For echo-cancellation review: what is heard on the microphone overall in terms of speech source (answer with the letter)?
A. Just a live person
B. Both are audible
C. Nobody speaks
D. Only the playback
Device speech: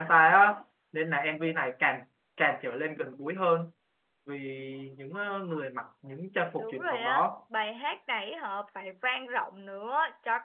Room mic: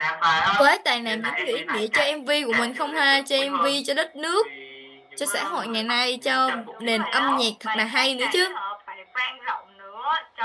B